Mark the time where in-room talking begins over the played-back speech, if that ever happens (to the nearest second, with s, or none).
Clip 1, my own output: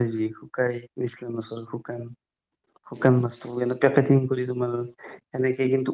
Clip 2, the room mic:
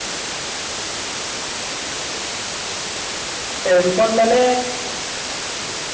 4 s